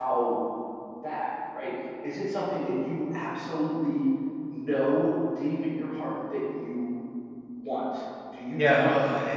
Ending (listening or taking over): taking over